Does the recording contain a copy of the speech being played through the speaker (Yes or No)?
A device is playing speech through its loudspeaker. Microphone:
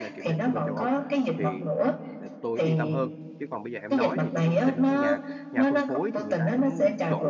Yes